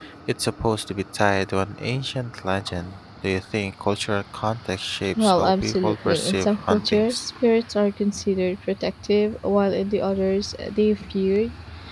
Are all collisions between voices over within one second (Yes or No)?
No